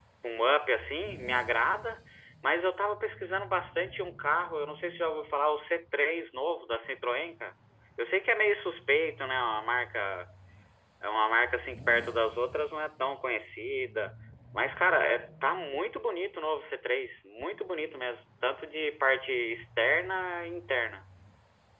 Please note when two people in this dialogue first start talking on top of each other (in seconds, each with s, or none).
none